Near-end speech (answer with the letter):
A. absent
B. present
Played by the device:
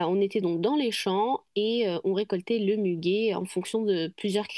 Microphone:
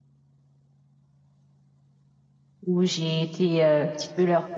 B